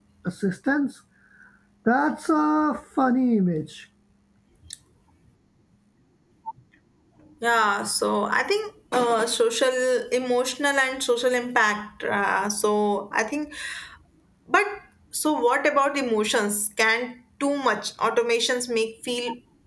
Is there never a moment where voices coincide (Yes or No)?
Yes